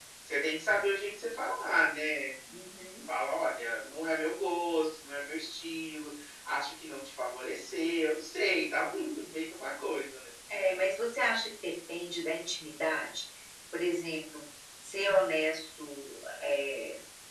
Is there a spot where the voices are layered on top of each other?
No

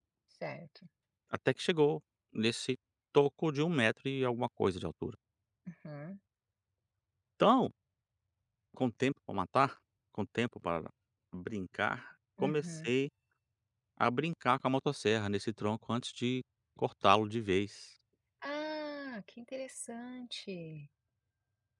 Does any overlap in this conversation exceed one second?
No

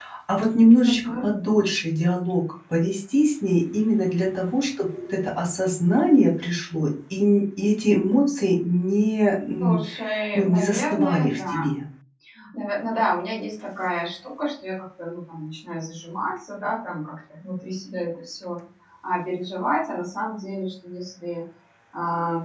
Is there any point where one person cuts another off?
Yes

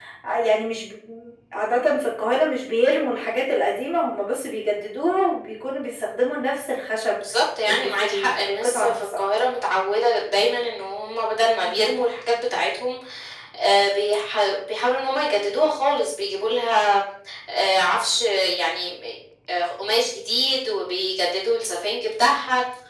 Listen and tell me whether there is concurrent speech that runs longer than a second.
Yes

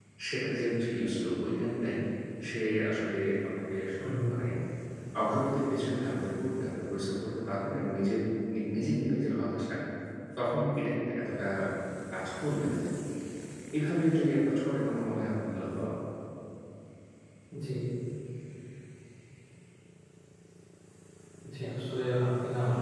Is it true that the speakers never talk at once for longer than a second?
Yes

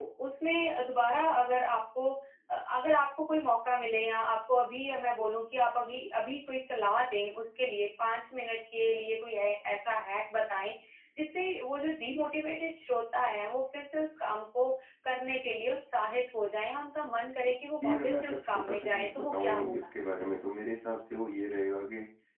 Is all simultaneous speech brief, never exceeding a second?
No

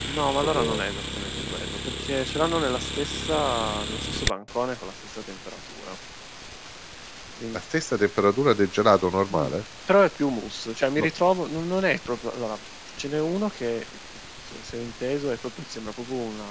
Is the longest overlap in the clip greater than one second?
No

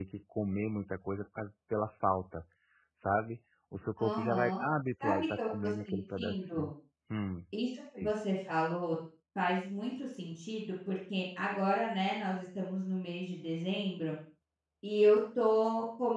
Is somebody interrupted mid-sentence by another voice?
Yes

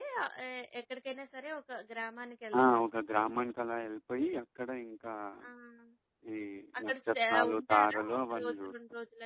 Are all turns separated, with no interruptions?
No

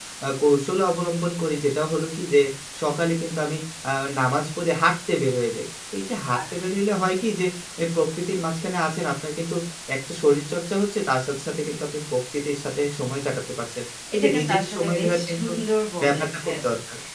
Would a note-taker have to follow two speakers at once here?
Yes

